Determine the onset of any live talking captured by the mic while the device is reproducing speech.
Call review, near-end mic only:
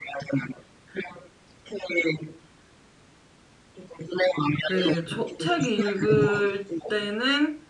4.7 s

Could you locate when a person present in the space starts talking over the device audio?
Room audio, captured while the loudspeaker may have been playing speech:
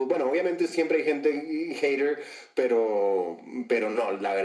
none

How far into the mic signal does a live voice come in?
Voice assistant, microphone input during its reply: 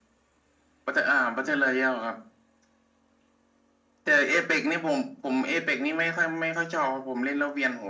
none

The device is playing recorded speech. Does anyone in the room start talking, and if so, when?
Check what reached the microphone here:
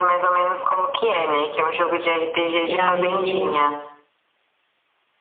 2.6 s

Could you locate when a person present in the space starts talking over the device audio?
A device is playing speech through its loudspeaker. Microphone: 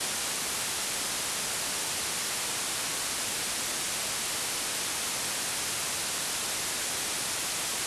none

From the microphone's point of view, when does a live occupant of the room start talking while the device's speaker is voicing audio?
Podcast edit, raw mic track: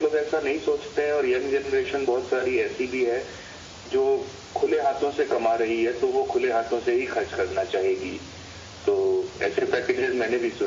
none

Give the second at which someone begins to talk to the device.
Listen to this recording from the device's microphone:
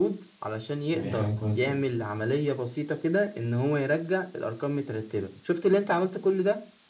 0.9 s

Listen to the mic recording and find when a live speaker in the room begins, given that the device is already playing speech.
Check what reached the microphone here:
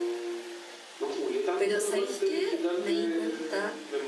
1.6 s

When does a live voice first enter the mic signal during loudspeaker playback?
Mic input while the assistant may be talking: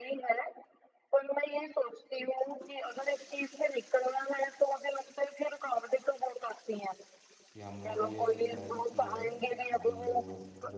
7.5 s

